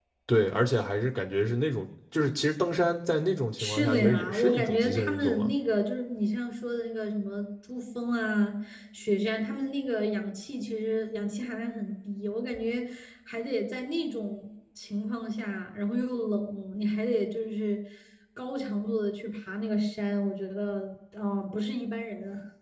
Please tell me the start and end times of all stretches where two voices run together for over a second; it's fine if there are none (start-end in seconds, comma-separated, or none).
3.6-5.5